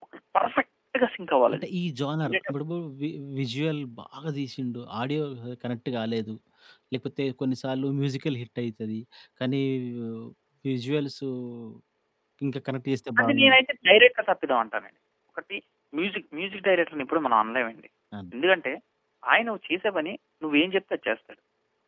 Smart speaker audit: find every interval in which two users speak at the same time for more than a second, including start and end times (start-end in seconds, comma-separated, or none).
none